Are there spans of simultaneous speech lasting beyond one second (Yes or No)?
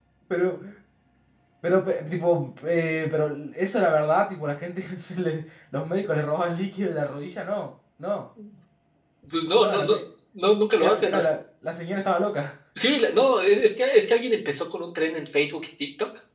No